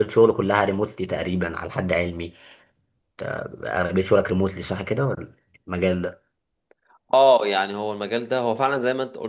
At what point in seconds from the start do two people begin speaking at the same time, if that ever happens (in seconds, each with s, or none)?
none